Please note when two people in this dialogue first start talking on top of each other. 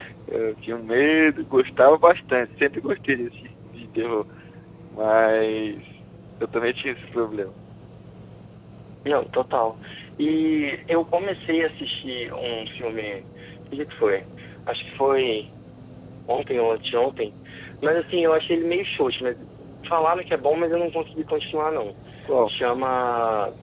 none

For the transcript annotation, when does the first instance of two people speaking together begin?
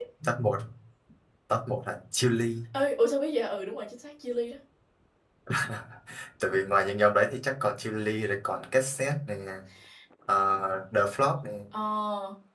none

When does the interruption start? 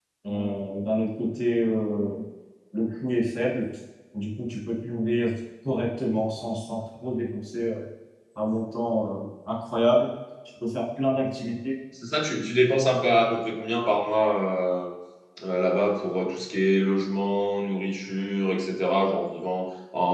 none

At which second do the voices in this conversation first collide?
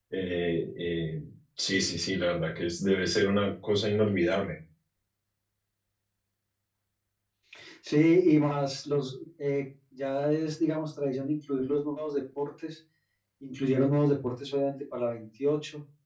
none

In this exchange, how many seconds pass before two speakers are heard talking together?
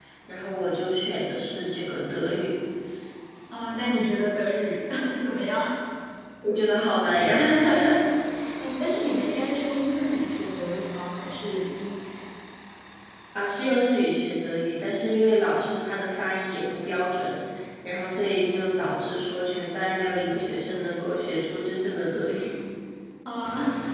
none

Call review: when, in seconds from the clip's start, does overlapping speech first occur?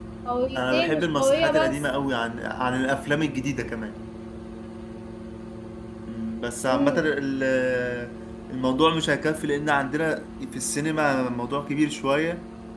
0.6 s

